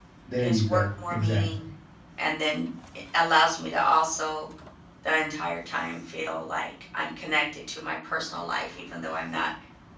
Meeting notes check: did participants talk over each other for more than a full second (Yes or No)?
Yes